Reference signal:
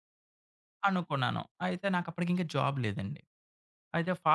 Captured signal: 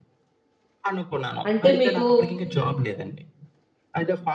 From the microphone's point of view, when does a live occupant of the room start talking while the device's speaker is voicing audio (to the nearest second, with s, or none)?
1 s